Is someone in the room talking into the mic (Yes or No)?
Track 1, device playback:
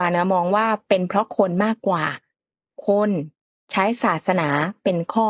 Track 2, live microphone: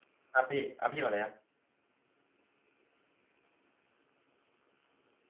Yes